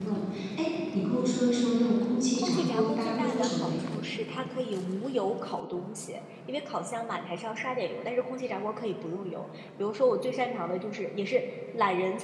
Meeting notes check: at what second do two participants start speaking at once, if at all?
2.4 s

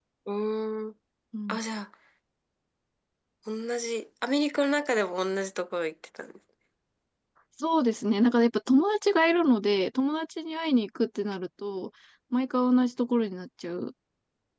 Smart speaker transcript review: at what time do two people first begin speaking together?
none

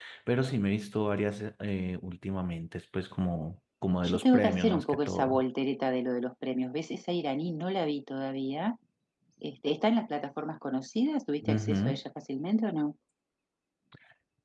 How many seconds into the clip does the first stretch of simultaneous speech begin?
4.0 s

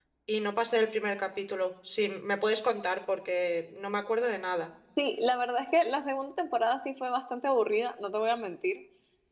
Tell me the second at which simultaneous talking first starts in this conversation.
none

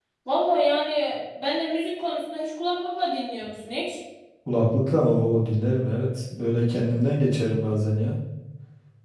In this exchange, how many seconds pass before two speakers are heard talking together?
none

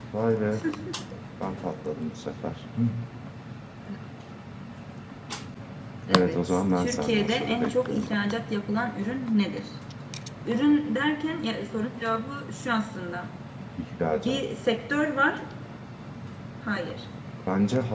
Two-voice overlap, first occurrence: 6.1 s

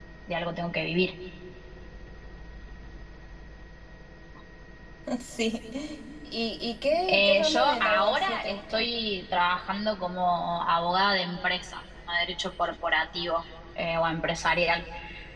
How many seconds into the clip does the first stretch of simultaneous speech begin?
7.1 s

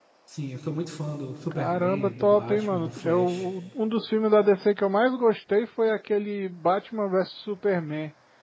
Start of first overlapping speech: 1.5 s

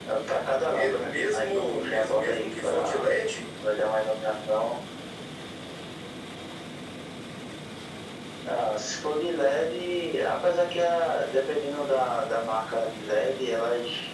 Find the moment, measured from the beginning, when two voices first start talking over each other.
0.7 s

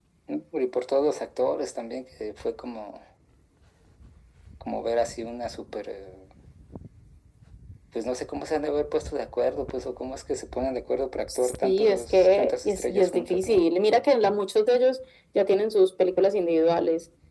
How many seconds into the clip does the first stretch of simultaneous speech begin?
11.3 s

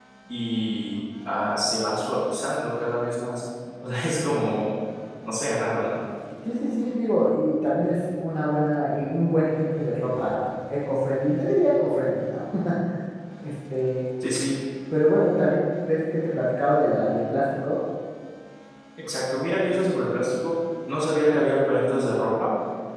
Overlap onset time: none

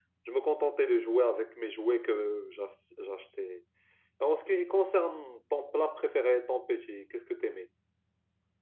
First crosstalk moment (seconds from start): none

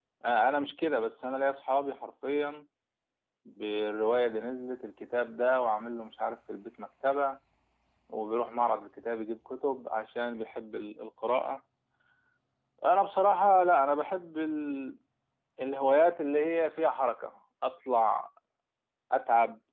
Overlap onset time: none

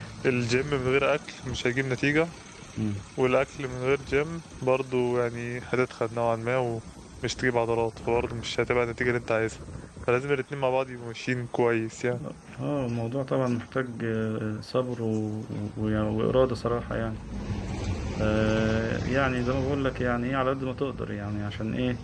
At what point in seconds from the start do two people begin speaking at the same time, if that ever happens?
none

